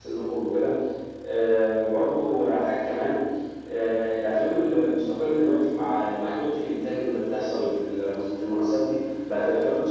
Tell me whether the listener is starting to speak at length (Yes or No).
No